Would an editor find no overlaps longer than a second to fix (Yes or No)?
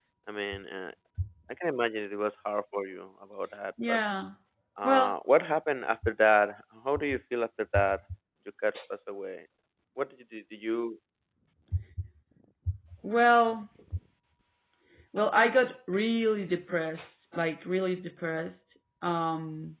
Yes